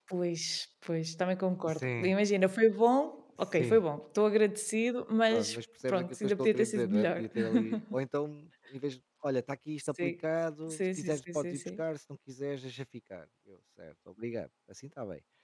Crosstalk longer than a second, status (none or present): present